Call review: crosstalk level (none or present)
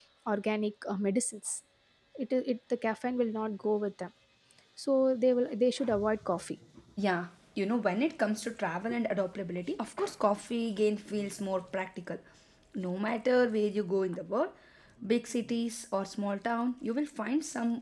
none